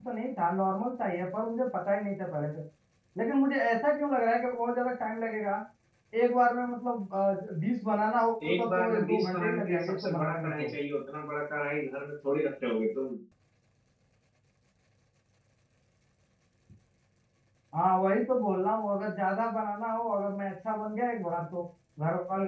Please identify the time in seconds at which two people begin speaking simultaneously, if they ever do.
8 s

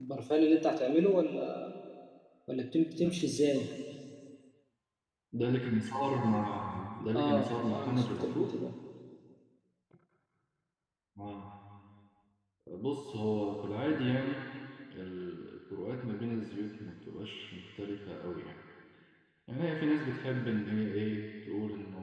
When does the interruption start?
7 s

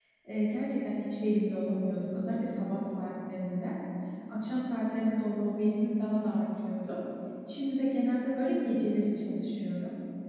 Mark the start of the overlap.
none

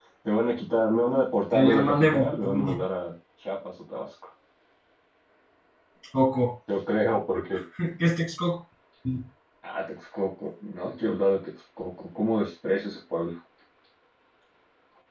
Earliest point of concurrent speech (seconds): 2 s

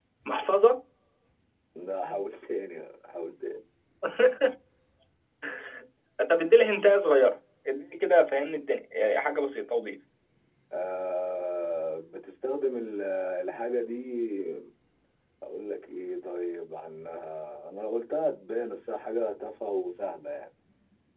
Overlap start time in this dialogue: none

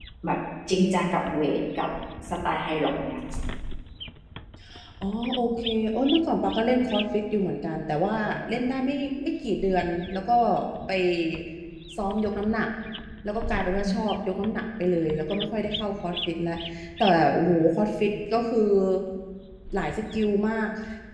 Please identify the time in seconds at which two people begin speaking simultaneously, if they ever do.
none

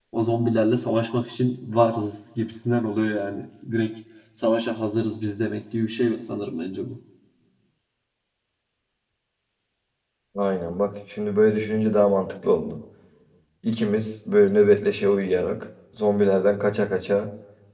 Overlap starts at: none

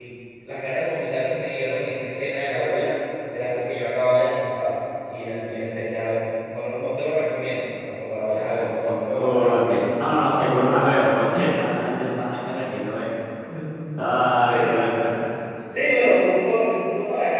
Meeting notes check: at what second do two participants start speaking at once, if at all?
8 s

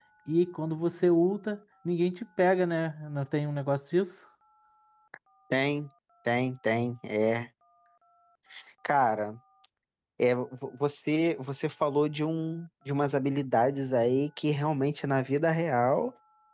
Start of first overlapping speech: none

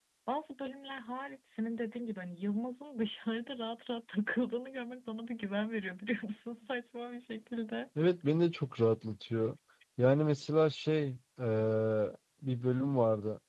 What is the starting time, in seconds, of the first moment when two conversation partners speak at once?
none

